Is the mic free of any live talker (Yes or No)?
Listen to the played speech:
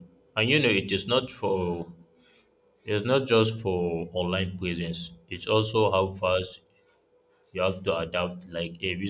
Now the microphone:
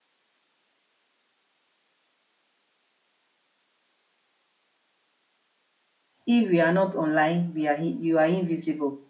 No